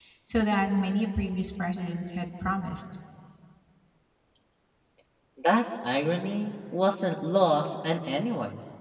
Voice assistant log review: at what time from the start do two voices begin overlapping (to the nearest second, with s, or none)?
none